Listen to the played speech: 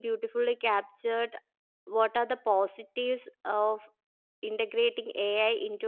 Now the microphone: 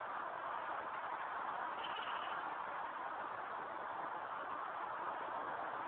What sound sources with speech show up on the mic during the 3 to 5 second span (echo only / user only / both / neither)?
neither